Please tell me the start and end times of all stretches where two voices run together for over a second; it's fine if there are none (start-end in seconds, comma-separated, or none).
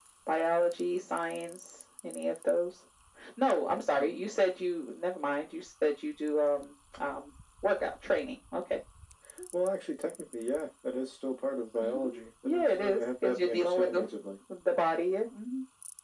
12.4-14.0